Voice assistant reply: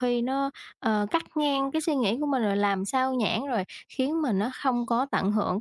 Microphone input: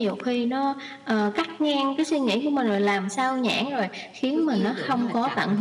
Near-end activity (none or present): present